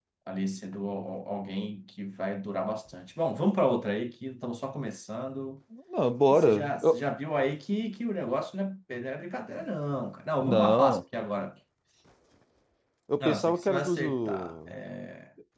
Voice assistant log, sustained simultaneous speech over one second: present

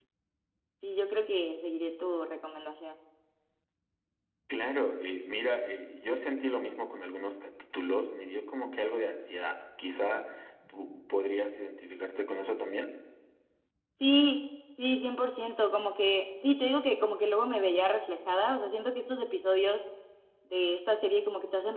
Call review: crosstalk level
none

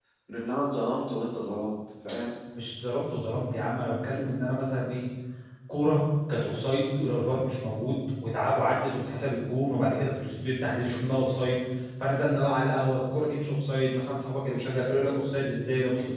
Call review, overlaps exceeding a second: none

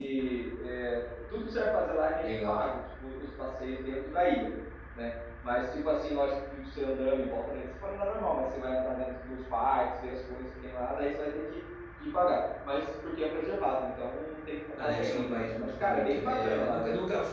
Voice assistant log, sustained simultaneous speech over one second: present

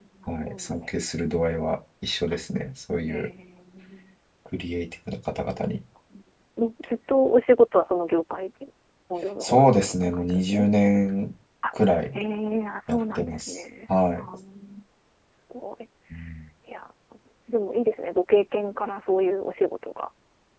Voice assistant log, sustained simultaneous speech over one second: present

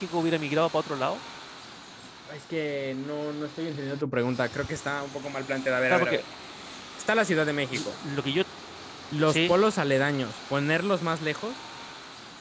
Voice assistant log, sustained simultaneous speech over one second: none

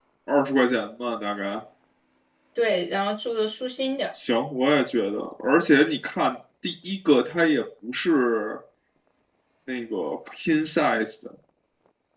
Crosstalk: none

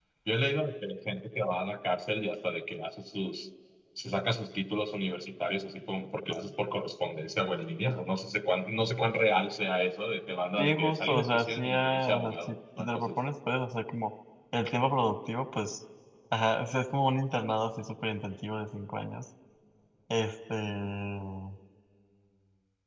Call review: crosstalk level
present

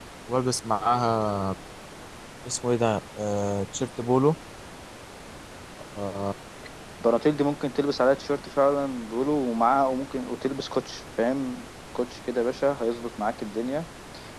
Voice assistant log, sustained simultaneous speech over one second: none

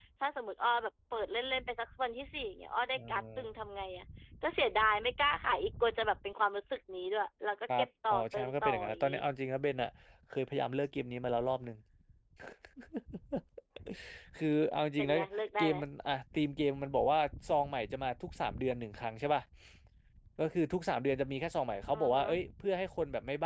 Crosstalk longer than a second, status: present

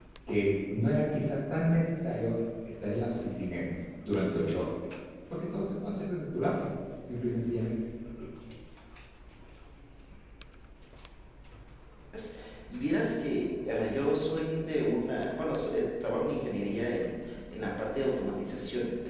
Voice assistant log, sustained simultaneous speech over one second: none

